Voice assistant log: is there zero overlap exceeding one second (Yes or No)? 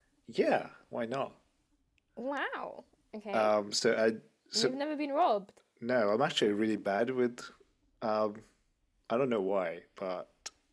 Yes